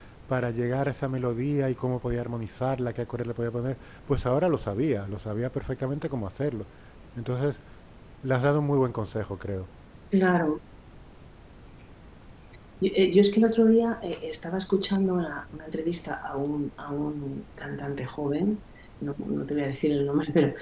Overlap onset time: none

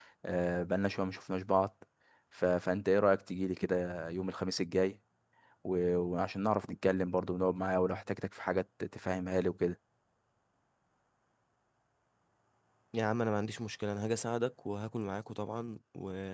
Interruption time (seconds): none

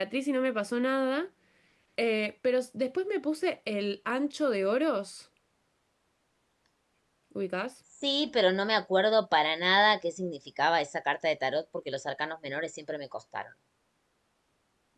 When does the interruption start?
none

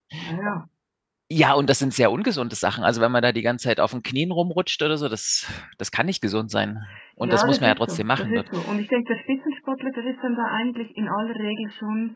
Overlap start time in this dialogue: 7.2 s

